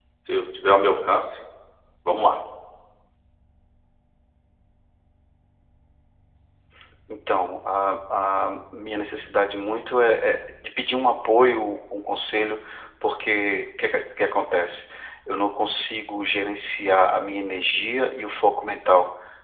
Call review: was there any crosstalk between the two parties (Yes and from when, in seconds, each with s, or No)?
No